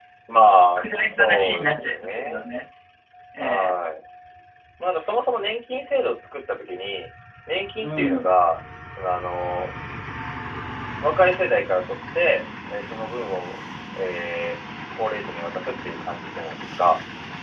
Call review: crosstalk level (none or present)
present